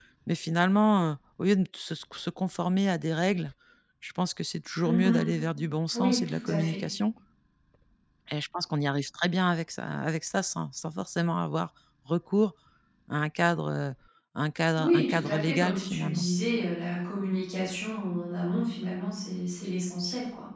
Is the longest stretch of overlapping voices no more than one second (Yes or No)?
No